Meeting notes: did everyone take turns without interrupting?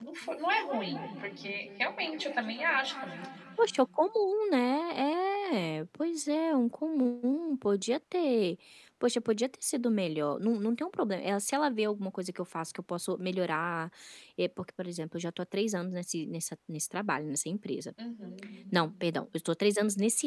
Yes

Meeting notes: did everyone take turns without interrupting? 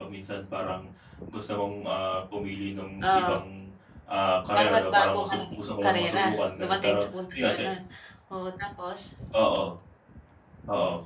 No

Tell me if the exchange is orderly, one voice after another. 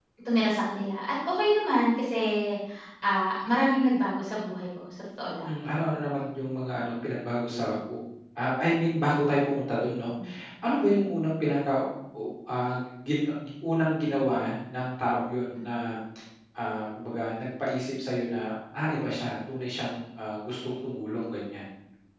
Yes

